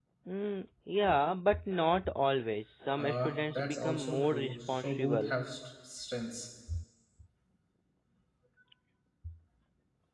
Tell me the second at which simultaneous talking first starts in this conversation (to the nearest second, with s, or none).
3 s